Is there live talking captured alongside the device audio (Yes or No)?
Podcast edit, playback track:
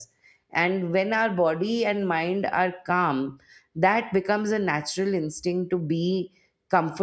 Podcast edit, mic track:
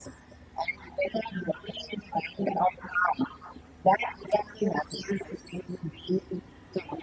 No